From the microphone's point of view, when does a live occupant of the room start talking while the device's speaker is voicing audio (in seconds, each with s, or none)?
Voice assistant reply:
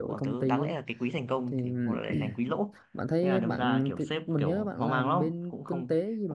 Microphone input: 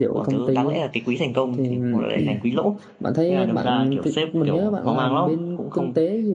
none